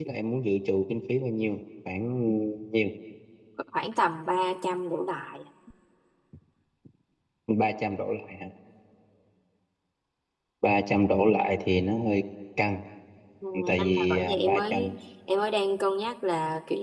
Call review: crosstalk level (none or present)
present